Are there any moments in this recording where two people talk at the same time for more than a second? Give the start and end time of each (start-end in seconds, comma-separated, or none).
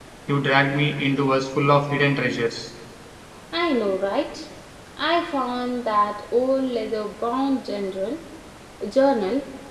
none